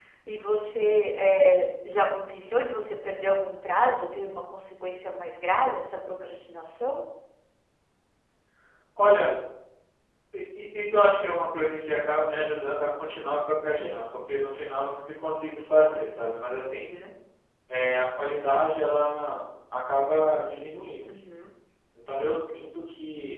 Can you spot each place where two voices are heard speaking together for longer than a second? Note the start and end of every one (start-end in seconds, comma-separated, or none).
none